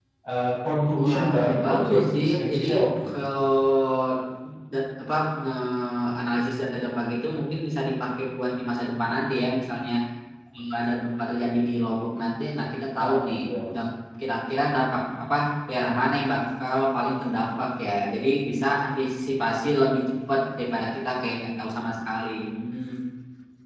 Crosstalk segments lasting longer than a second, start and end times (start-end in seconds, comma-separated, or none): 1.0-2.6